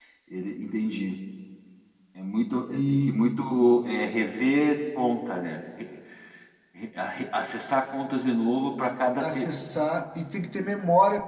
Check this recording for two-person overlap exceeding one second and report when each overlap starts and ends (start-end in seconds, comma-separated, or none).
none